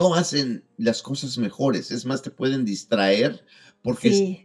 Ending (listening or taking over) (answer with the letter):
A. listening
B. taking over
A